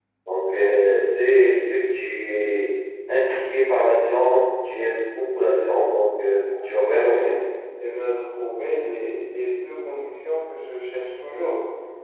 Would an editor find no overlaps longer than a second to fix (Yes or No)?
Yes